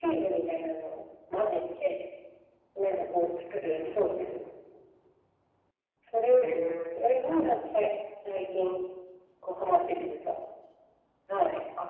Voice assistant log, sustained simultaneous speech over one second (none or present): present